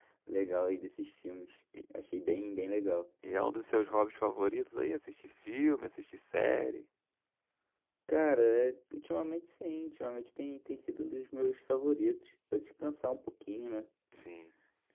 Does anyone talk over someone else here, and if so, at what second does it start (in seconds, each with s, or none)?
none